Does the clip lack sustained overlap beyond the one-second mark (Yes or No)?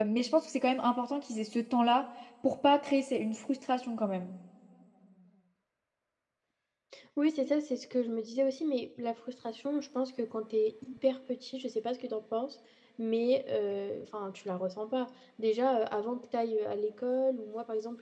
Yes